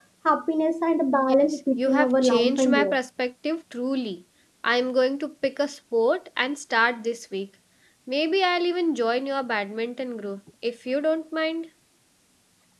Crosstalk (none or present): present